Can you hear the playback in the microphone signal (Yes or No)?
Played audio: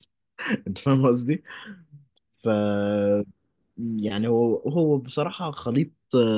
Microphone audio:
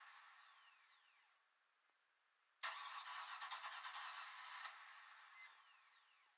No